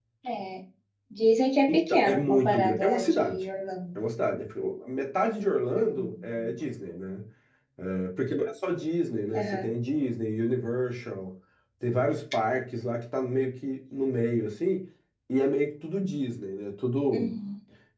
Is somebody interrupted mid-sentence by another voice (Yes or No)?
Yes